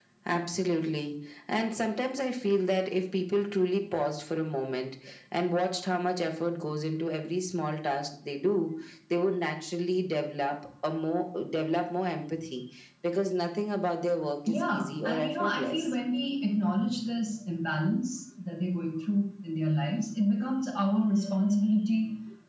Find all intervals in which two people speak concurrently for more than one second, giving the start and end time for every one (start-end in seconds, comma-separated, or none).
14.5-15.8